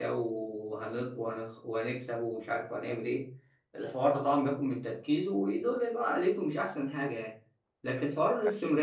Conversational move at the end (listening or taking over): listening